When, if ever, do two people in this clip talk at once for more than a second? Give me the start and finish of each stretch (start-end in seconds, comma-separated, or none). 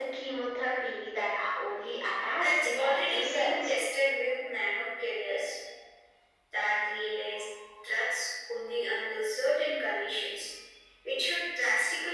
2.4-3.7